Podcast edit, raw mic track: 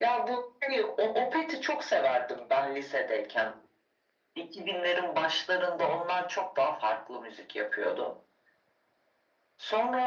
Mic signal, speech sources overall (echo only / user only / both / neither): echo only